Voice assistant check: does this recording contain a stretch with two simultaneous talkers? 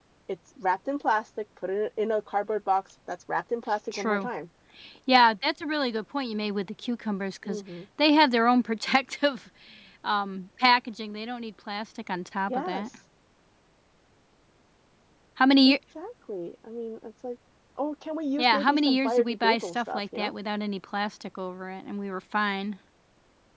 Yes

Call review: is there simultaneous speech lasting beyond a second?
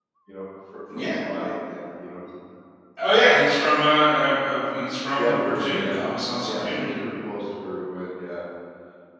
Yes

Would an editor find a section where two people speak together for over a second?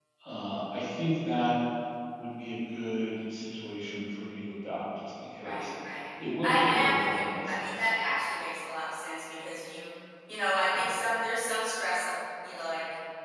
Yes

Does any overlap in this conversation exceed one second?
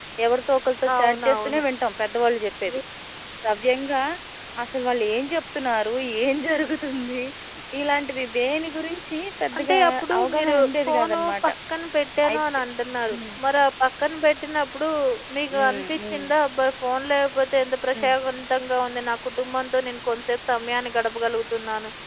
Yes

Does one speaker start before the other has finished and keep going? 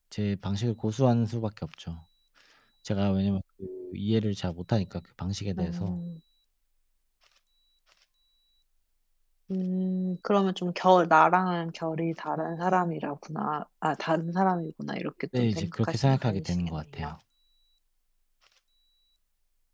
Yes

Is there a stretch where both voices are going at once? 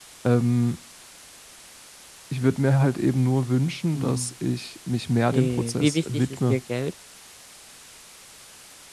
Yes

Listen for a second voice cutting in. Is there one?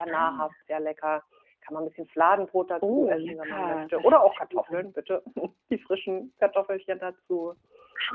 Yes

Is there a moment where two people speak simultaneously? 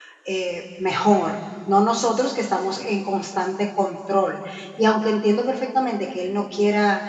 No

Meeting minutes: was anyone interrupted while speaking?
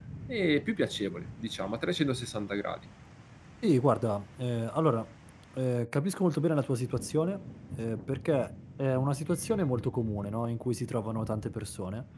No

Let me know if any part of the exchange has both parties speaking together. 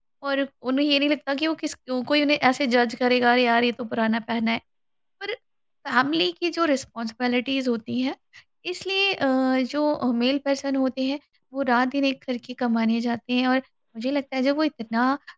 No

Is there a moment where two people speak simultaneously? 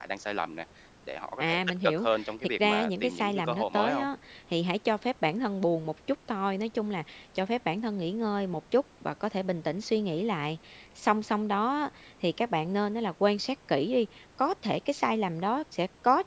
Yes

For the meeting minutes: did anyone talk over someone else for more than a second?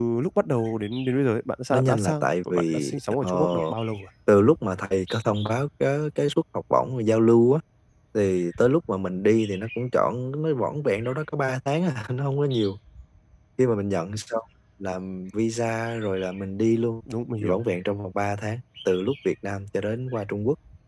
Yes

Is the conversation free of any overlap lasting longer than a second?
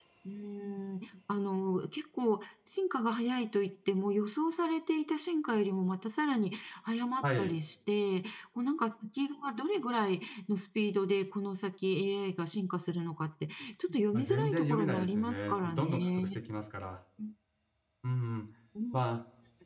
No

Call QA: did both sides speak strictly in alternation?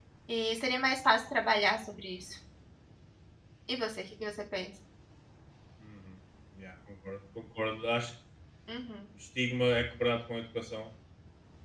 Yes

